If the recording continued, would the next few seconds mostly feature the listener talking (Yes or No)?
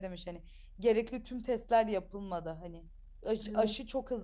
No